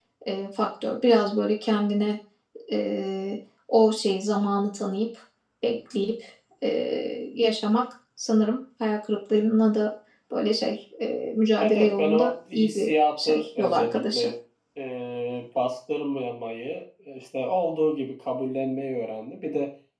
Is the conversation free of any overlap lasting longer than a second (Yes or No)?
No